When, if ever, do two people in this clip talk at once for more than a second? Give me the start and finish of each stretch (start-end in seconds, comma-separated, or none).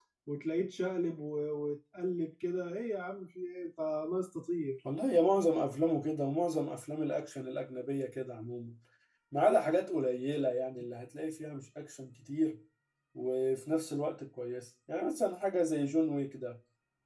none